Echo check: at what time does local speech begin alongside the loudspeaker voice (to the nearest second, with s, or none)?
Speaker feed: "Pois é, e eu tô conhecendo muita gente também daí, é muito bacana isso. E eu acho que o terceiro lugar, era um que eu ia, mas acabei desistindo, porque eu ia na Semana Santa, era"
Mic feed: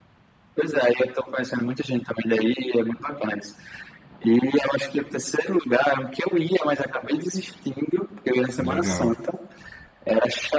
9 s